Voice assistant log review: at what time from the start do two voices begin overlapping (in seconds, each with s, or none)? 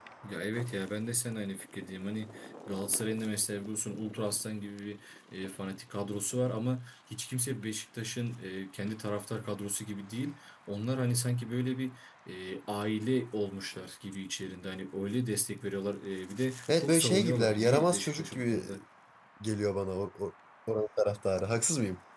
16.7 s